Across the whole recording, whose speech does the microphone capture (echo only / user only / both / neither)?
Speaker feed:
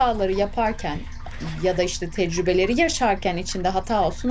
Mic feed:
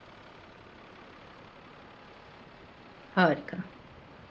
user only